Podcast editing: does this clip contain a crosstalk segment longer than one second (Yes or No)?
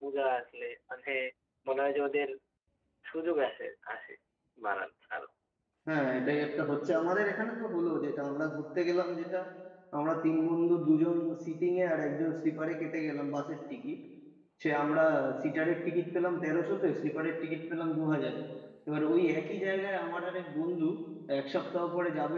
No